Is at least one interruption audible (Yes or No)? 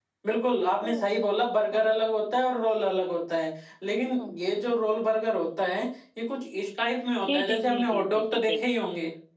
Yes